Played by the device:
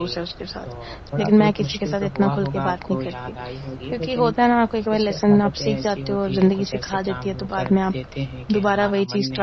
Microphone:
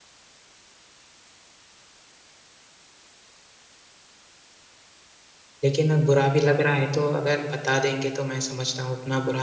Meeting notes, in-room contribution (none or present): present